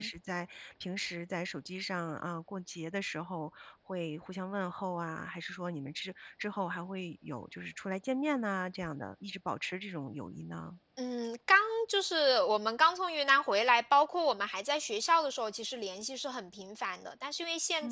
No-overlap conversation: Yes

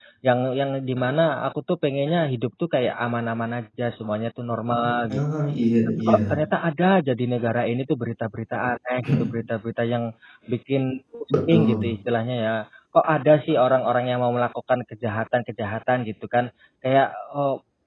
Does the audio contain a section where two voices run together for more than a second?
No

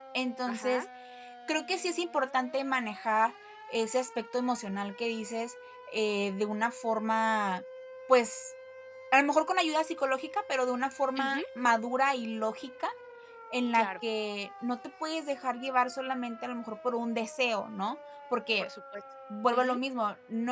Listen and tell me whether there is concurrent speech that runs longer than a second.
No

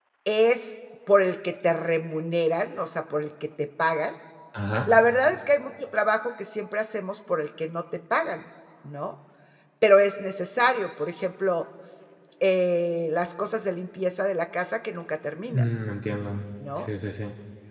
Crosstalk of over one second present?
No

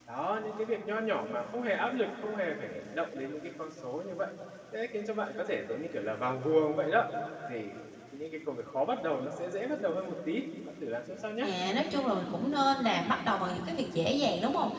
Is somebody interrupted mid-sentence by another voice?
No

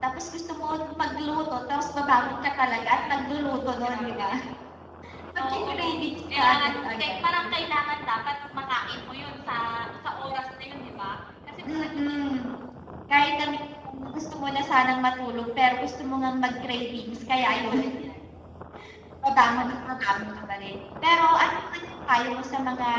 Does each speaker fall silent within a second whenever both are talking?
No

